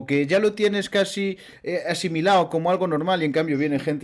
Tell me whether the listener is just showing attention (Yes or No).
Yes